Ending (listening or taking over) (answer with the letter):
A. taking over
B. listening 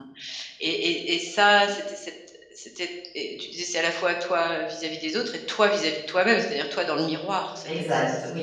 A